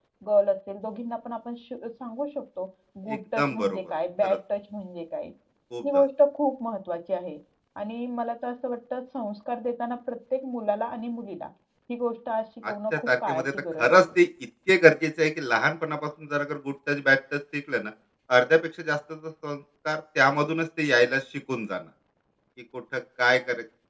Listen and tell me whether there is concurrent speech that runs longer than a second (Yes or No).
Yes